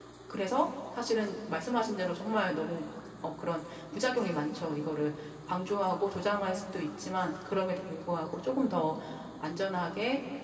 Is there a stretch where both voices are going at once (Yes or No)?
No